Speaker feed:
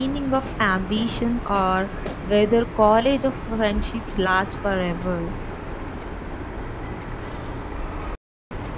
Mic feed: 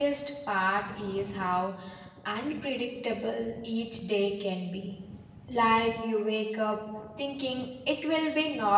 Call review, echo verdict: none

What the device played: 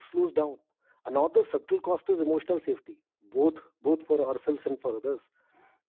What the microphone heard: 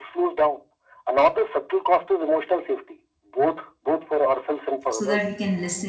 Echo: present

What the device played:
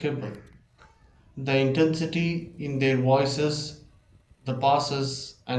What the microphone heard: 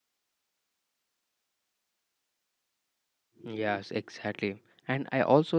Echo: none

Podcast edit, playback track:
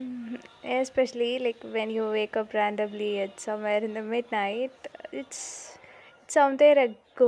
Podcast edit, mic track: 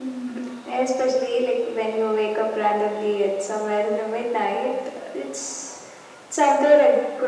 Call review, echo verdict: present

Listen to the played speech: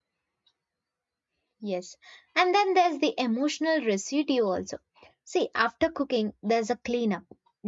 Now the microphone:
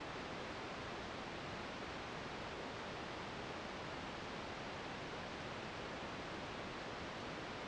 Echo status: none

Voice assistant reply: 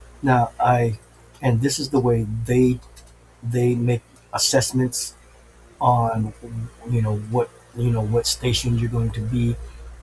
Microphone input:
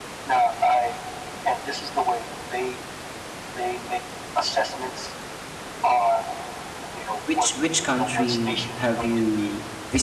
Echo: present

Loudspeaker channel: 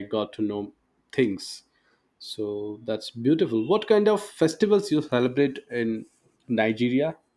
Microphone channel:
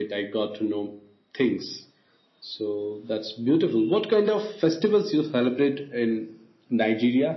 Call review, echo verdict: present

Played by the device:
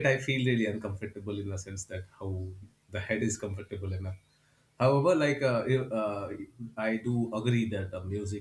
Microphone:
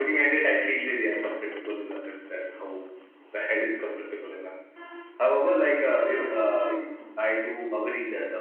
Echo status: present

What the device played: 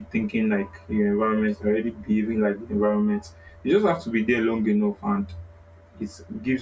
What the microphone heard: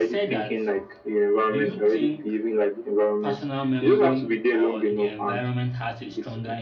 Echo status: present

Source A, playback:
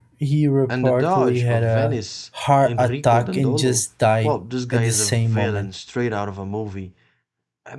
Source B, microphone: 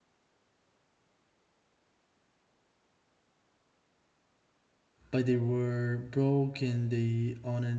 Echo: none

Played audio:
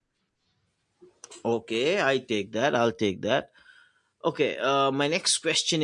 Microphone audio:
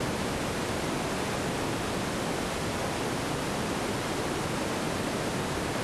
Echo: none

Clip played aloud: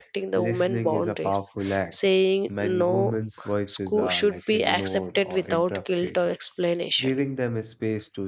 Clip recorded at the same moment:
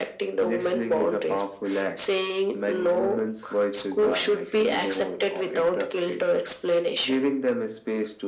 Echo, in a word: present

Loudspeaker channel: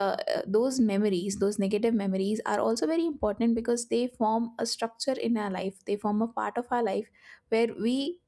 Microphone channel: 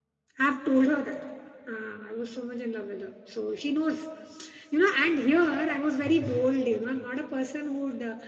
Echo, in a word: none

